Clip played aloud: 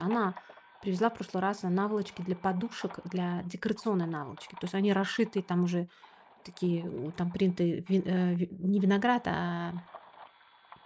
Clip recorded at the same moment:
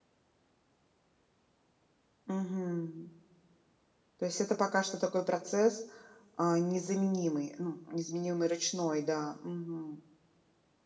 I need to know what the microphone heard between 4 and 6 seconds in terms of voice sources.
user only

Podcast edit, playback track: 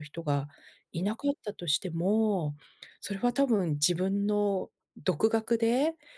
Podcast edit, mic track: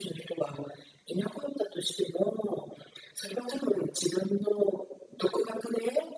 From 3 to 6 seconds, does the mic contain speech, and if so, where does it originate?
echo only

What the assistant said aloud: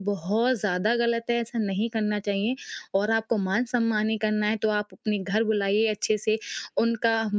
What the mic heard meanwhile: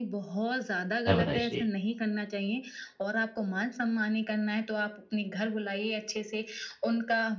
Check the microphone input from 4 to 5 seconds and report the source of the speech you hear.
echo only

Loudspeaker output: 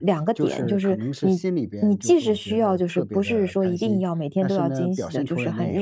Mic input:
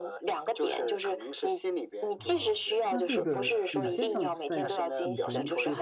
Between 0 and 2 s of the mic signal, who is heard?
echo only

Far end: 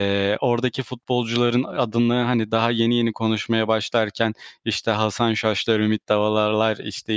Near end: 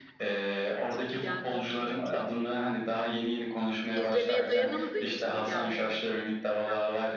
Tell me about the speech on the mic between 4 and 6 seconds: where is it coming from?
both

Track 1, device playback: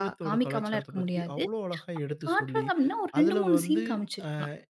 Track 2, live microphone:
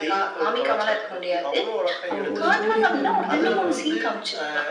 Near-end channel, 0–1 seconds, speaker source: echo only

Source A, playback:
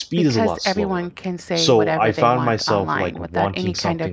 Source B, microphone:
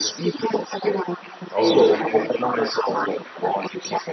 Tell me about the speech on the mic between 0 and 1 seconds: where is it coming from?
echo only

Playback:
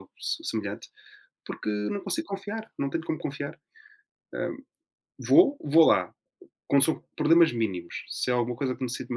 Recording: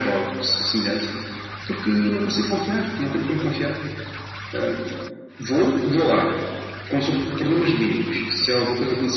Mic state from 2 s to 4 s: echo only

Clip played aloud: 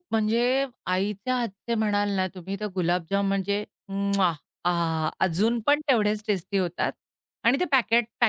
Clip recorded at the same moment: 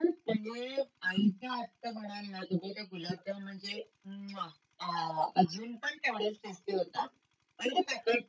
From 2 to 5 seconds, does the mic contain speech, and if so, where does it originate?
echo only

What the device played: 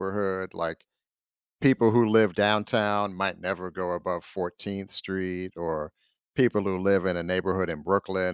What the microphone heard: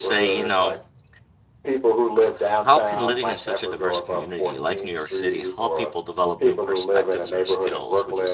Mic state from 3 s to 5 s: both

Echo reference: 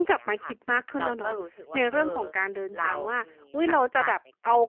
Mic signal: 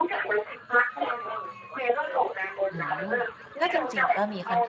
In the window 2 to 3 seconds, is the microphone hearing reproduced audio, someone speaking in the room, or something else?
both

